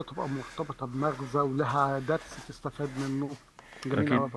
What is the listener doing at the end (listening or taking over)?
taking over